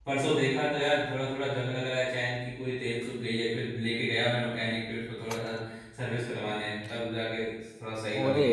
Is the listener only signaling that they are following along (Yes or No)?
No